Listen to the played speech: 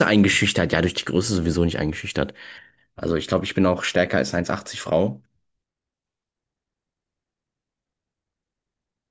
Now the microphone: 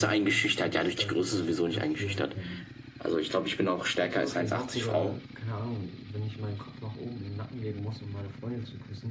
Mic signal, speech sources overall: both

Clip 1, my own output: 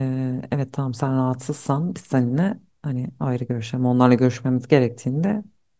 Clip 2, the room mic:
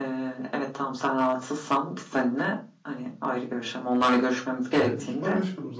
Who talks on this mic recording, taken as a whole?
both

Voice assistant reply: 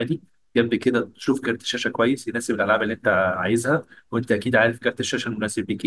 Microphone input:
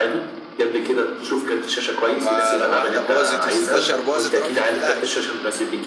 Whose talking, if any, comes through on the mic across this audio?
both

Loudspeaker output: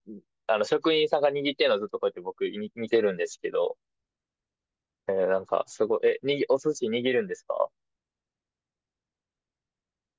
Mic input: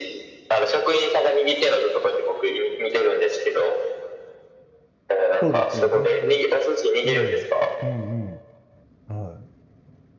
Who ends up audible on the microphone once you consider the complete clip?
both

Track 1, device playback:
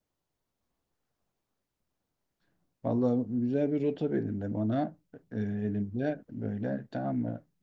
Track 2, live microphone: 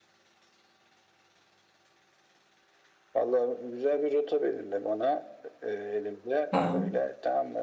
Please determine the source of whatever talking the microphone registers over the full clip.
both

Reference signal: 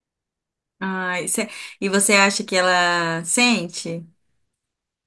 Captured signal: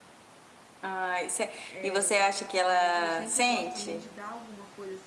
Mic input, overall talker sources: both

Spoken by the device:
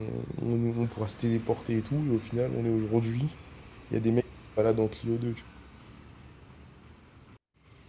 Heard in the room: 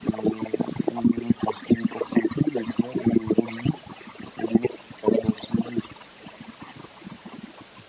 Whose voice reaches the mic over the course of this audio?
echo only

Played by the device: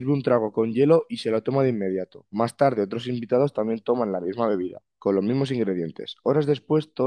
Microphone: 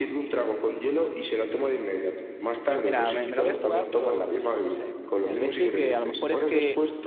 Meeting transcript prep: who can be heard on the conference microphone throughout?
both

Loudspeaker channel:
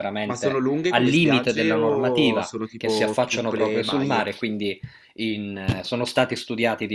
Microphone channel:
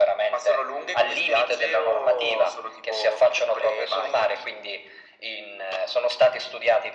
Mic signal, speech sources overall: echo only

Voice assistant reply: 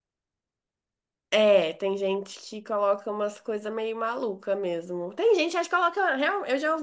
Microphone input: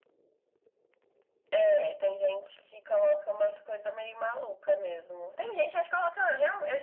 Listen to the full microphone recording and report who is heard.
echo only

